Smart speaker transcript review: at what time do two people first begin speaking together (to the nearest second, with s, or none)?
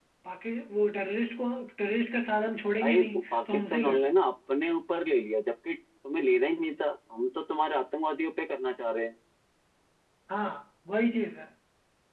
3 s